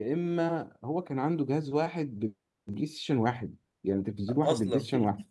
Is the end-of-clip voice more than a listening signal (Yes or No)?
No